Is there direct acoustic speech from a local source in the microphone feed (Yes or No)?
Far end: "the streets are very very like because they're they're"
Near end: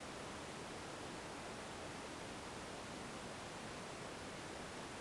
No